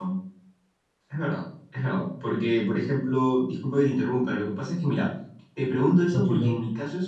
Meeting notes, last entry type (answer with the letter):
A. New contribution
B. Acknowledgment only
B